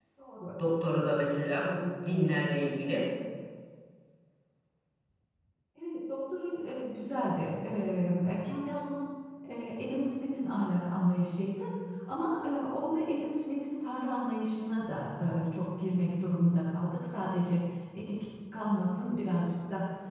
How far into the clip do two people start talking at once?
none

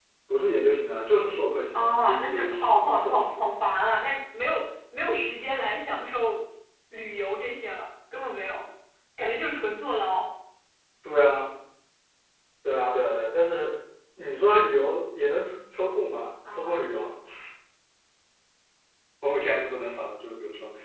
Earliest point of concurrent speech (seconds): 1.7 s

